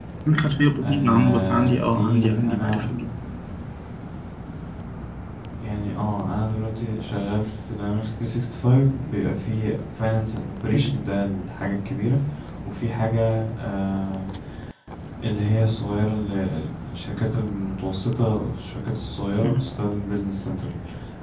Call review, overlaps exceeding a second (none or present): present